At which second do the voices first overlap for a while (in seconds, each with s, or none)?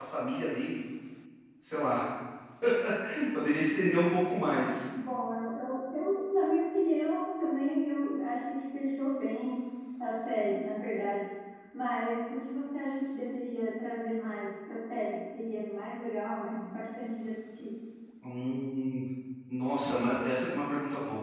none